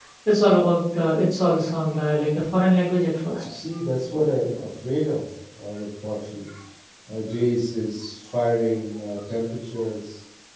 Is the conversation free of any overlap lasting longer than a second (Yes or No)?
Yes